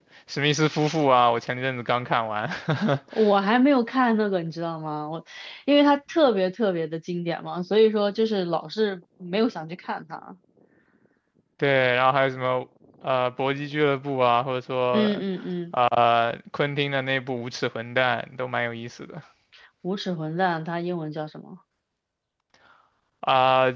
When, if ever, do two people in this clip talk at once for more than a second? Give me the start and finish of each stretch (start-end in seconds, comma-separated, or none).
none